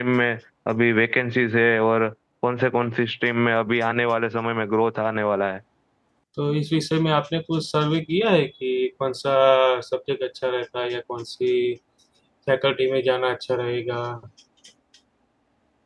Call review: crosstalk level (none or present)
none